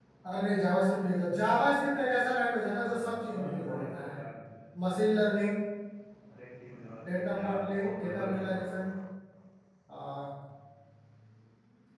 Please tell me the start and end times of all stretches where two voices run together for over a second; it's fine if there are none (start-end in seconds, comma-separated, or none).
2.6-4.2, 7.3-8.8